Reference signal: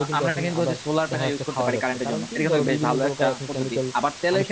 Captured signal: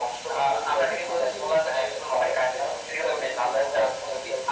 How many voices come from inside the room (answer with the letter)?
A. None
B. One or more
B